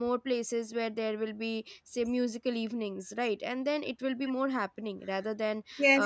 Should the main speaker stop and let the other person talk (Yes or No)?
Yes